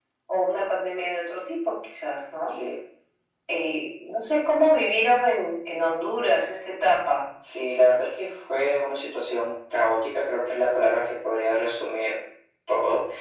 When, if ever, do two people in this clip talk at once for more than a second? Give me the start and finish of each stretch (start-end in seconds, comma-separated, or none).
none